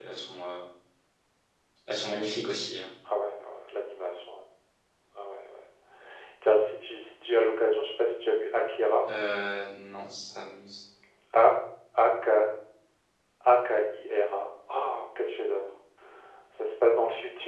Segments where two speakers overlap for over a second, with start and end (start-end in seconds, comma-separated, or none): none